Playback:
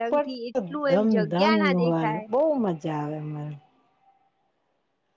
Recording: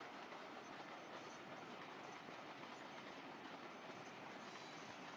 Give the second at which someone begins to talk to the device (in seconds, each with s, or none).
none